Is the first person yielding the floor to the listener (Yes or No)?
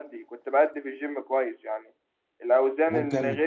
No